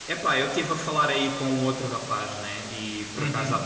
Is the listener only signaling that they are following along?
Yes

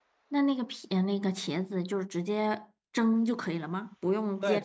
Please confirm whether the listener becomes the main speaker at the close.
Yes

